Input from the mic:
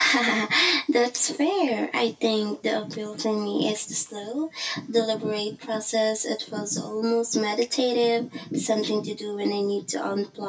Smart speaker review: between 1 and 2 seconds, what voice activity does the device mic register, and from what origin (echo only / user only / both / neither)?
echo only